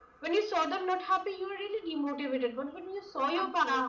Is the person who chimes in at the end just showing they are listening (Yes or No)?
Yes